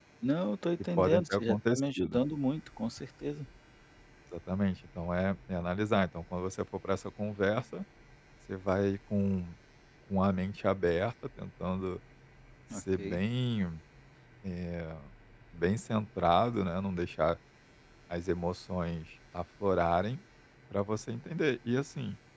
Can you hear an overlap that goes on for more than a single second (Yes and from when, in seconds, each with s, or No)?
Yes, from 1.0 s